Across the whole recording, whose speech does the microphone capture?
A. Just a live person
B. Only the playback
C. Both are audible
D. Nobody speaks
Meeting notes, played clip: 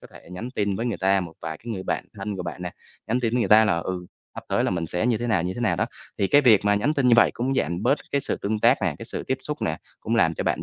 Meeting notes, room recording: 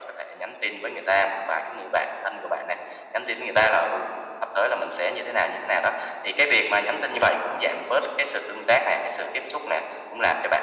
B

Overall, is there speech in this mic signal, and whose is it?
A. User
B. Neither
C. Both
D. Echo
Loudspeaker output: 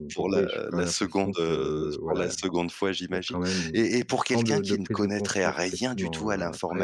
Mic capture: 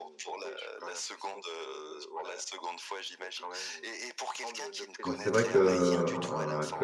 C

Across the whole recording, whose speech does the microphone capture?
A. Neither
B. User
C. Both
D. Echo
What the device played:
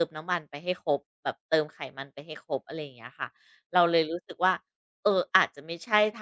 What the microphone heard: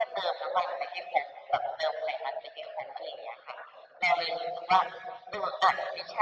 D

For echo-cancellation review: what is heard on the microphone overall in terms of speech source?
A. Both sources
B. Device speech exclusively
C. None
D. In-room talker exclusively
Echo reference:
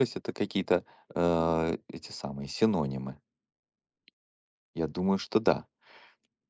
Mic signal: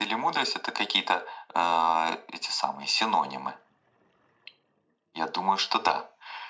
B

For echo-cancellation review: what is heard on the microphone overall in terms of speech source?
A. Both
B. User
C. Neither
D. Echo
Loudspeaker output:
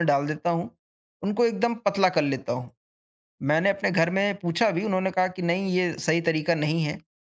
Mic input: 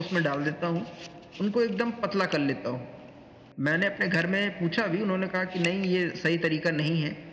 D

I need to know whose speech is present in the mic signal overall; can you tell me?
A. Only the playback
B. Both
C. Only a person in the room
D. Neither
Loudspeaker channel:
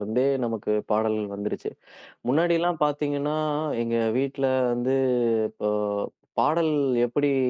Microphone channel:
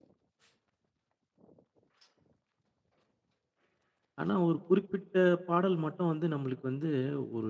C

